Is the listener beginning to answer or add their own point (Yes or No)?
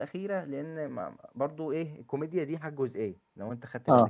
No